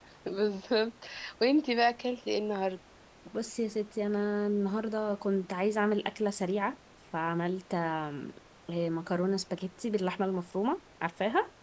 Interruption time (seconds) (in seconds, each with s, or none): none